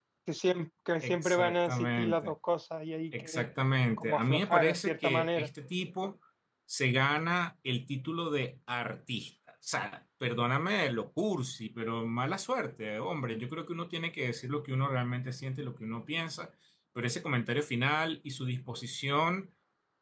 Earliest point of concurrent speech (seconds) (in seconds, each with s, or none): 1.0 s